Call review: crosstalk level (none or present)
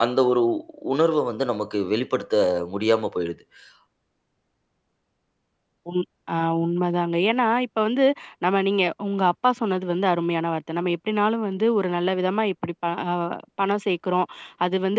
none